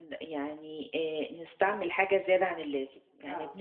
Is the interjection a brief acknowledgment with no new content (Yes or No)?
Yes